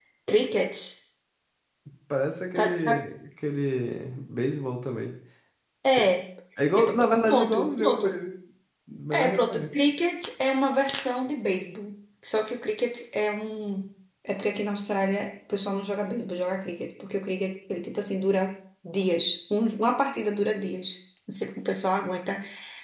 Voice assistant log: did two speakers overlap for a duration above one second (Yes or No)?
Yes